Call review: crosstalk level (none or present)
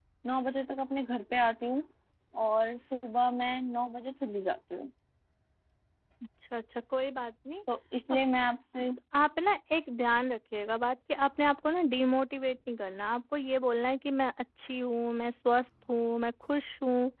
none